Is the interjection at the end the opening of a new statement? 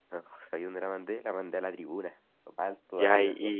Yes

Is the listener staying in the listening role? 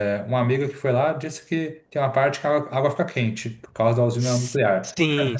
No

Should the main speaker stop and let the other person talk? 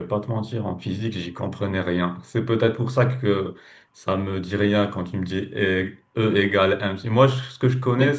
No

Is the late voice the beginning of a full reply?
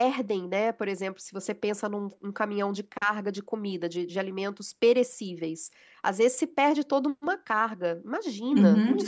Yes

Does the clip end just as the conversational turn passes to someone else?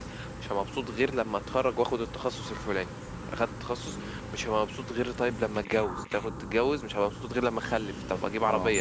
No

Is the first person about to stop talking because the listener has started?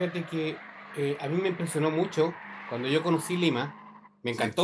No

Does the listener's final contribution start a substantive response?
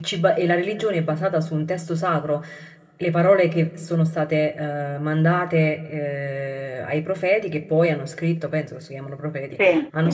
No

